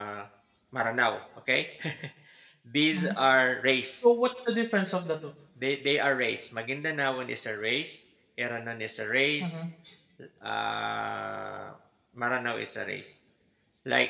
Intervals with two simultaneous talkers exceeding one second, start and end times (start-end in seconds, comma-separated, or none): none